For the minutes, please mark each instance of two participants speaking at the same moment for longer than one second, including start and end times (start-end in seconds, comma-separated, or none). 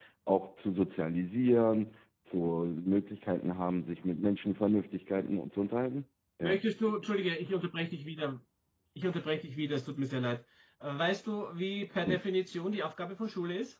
none